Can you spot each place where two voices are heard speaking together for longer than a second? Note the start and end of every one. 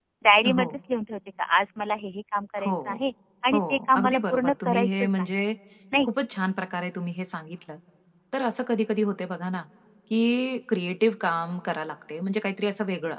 3.5-5.4

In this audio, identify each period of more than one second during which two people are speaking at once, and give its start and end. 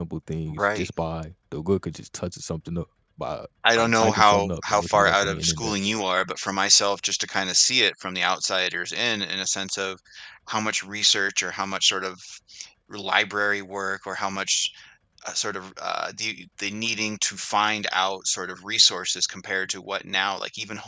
3.7-5.7

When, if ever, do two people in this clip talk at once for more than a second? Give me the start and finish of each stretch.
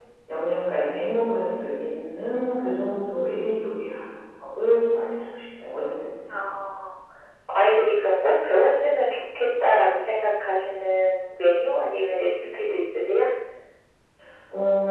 none

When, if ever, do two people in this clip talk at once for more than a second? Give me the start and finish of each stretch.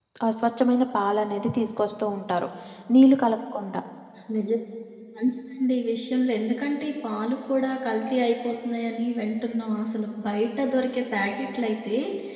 none

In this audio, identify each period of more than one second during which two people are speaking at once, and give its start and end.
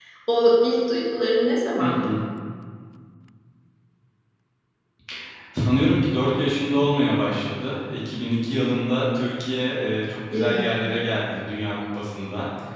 none

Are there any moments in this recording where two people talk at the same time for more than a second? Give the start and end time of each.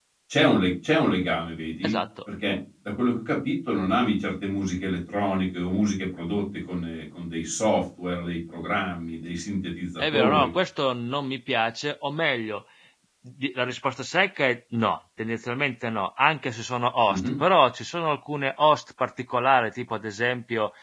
none

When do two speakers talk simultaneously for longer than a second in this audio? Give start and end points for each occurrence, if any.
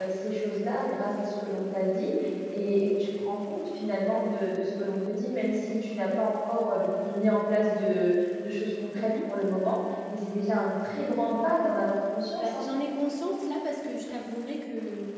none

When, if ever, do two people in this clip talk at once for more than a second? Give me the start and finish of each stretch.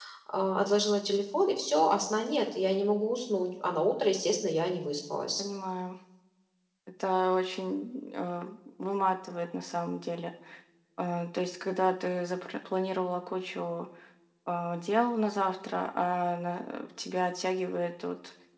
none

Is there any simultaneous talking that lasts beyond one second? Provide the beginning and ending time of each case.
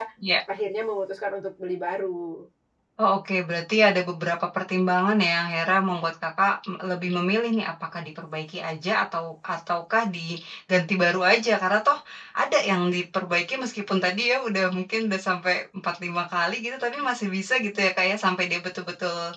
none

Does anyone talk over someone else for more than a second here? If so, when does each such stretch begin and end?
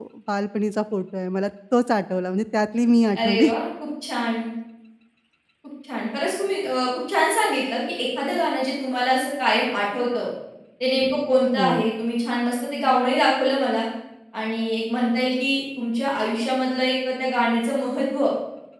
none

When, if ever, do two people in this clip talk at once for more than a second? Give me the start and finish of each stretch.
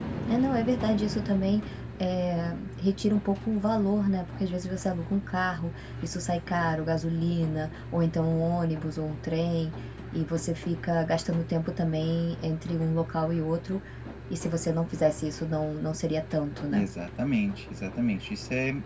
none

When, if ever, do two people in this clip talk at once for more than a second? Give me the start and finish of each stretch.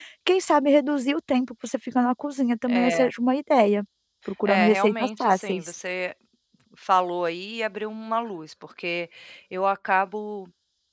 4.5-5.7

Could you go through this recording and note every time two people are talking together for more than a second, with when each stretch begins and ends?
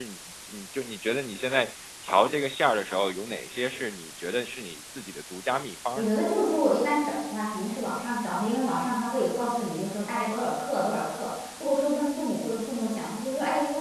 none

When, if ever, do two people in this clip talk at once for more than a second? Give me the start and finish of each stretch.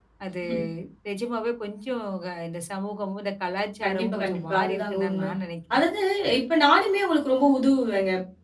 3.8-5.3

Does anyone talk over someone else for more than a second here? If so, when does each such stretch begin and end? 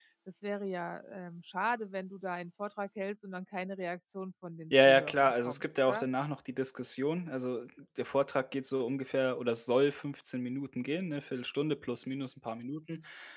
4.7-6.1

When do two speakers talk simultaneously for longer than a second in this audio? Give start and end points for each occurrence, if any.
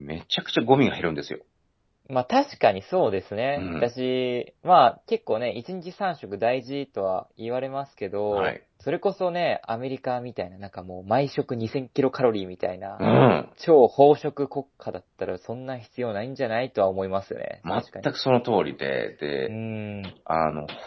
none

